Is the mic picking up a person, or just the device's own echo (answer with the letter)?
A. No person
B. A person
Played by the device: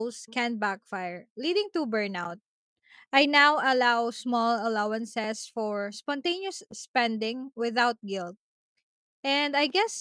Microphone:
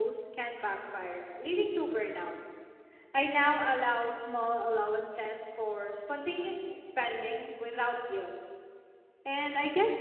A